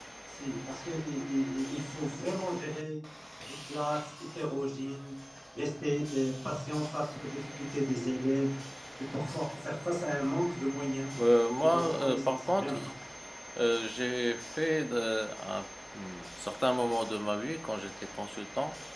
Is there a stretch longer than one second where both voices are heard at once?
Yes, from 11.6 s

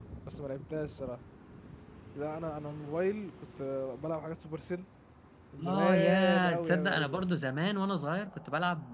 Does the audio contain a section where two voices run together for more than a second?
Yes, from 5.7 s

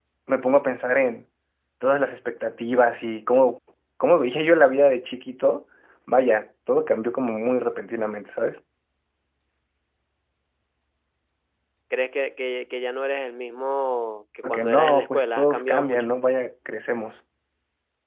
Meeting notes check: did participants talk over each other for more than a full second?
Yes, from 14.4 s

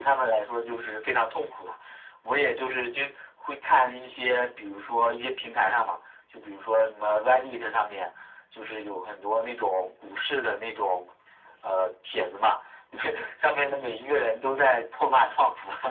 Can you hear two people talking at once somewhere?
No

